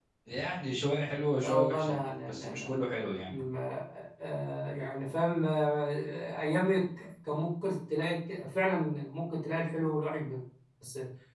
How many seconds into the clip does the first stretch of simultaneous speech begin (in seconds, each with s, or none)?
1.3 s